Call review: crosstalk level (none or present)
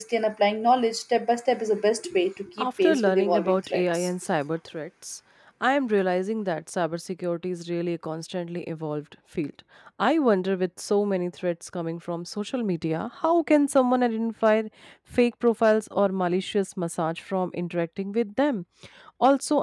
present